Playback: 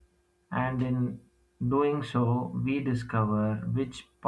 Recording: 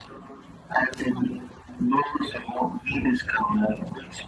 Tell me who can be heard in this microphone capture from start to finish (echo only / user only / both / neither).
echo only